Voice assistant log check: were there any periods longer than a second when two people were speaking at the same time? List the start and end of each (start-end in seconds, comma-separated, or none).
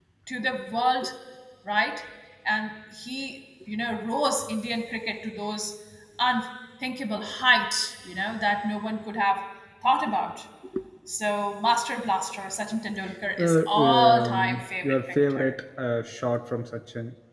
13.4-15.5